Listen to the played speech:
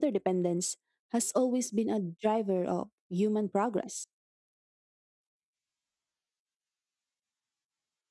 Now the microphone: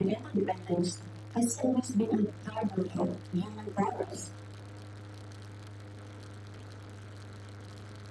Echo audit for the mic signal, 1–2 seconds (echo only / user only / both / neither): echo only